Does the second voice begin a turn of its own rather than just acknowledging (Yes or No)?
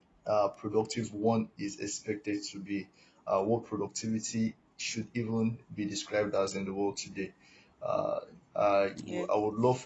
No